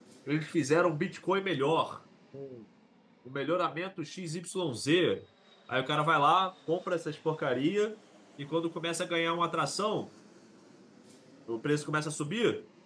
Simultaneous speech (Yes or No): No